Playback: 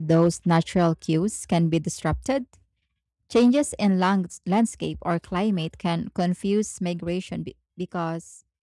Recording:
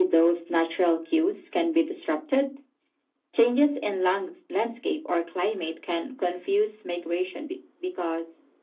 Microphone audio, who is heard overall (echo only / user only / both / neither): echo only